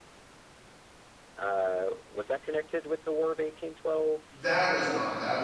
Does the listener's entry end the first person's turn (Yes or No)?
Yes